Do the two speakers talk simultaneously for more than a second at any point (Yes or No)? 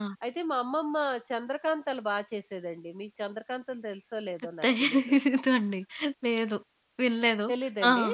No